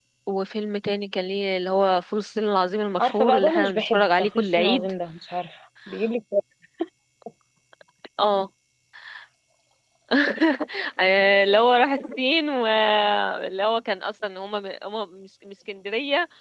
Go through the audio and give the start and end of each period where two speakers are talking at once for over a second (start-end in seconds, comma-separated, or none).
3.0-4.9